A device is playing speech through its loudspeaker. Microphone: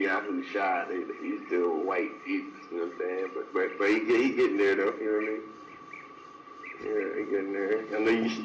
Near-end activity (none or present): none